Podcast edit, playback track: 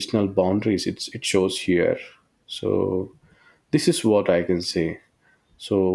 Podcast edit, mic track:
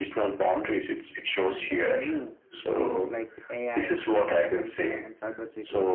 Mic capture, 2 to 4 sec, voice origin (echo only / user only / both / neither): both